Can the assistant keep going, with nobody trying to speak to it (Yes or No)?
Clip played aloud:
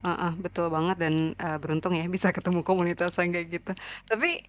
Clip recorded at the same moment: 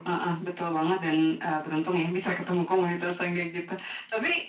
Yes